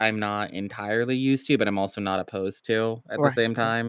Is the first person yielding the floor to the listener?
Yes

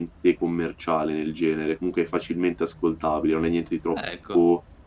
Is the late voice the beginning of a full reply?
No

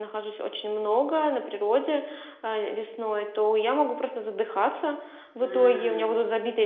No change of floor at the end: Yes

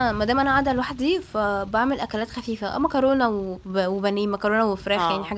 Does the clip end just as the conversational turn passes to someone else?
No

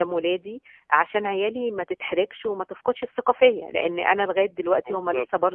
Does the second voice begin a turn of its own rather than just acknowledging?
No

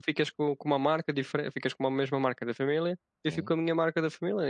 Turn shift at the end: No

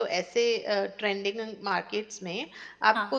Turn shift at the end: No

